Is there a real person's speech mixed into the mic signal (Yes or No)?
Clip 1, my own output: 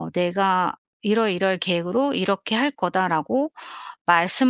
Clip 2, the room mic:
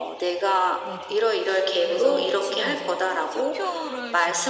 Yes